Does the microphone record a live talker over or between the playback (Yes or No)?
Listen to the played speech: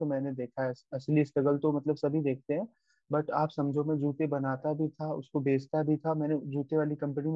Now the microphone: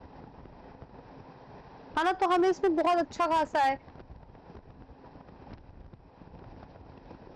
Yes